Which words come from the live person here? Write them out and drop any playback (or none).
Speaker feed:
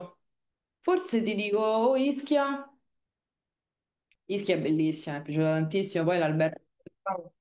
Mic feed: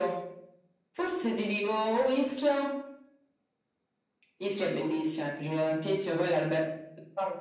none